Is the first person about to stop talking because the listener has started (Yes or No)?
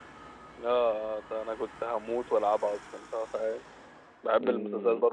Yes